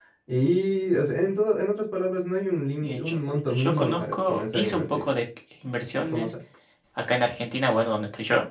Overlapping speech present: Yes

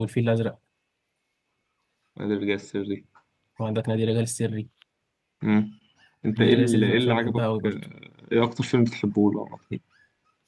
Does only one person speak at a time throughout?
No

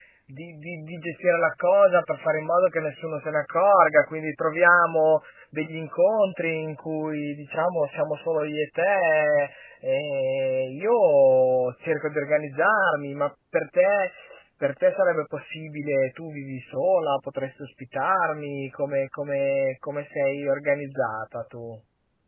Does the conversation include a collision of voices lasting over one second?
No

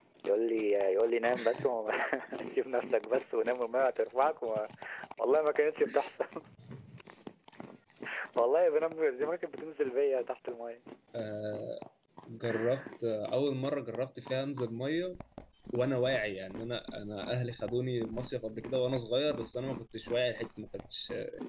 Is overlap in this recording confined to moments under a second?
Yes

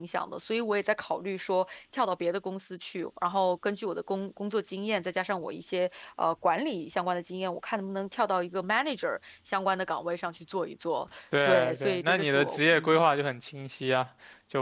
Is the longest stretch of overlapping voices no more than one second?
No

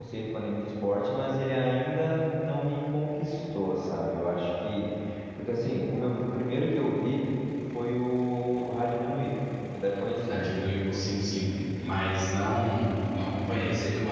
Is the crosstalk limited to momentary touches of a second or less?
Yes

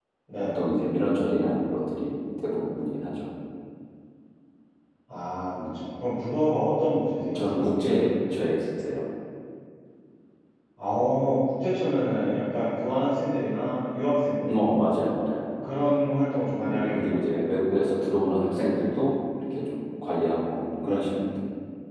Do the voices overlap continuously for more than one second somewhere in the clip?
No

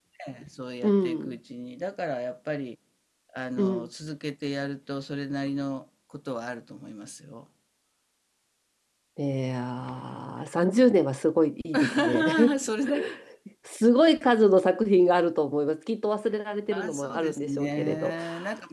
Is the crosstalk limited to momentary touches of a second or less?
No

